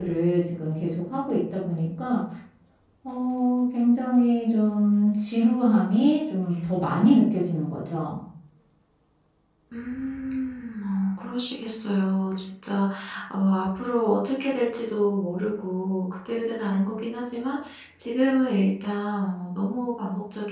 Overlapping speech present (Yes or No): No